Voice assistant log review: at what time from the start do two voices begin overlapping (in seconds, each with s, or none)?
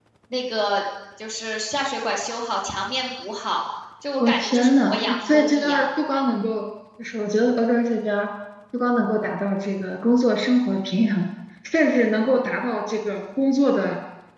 4.2 s